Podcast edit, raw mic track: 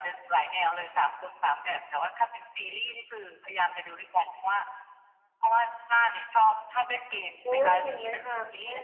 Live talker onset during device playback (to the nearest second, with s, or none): 7 s